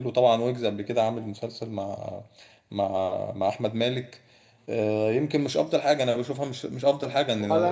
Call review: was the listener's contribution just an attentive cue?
No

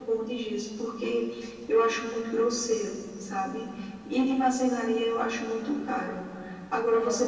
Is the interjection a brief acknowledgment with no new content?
Yes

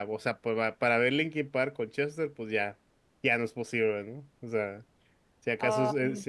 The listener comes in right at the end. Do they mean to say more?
No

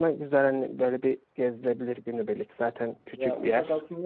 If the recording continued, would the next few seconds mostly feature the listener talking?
Yes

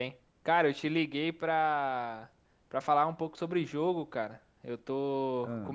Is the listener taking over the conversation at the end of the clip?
No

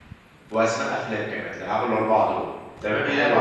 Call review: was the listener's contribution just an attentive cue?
Yes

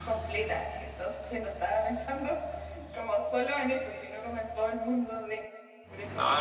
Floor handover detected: Yes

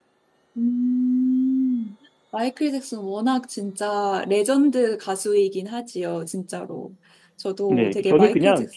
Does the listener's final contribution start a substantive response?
Yes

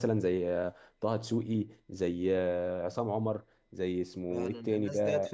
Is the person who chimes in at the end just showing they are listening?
No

